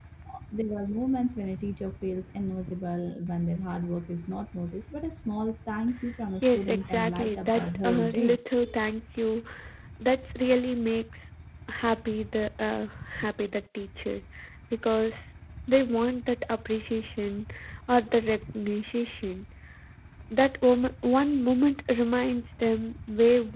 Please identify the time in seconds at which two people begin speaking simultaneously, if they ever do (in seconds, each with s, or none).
6.4 s